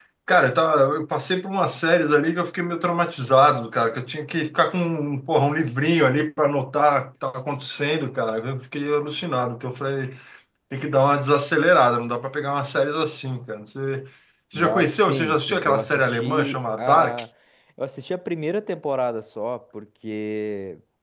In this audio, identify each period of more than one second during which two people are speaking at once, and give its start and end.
14.5-17.2

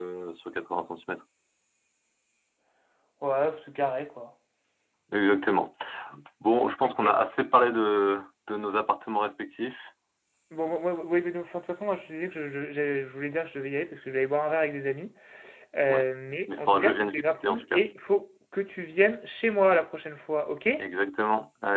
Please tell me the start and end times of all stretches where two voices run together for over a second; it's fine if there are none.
16.5-17.8

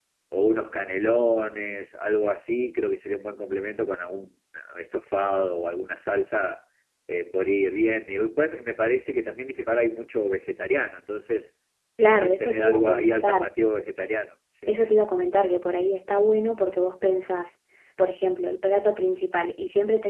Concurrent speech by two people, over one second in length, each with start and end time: 12.1-13.4

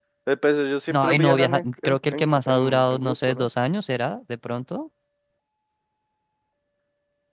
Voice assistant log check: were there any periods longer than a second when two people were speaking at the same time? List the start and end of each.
0.9-3.5

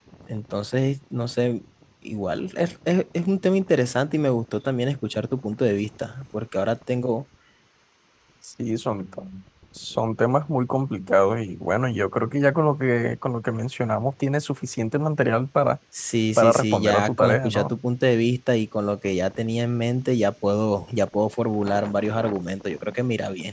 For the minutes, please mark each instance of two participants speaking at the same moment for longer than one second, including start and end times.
16.4-17.7

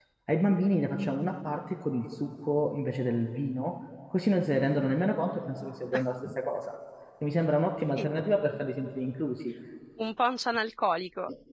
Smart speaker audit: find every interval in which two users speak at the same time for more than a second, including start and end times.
none

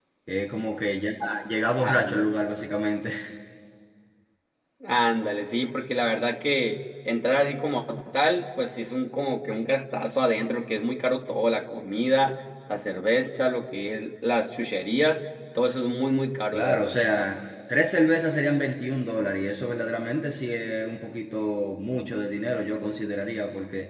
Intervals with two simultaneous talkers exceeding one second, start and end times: none

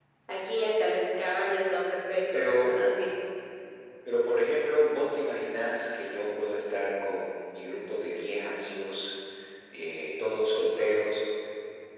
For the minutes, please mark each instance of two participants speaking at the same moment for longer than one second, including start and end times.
none

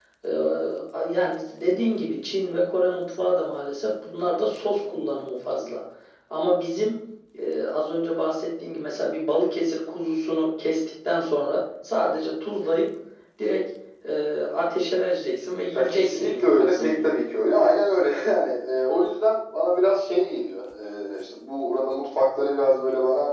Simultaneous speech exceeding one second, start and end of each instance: 15.7-17.1

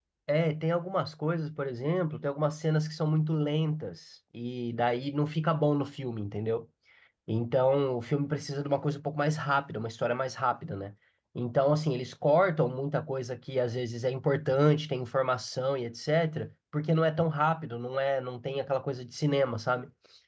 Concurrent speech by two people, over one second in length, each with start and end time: none

